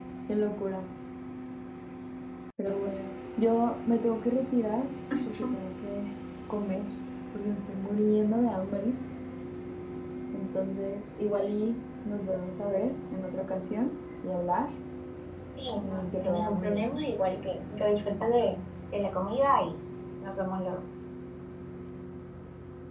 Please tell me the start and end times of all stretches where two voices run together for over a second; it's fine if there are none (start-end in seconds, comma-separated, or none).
15.8-17.0